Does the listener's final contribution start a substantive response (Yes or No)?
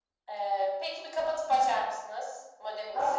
Yes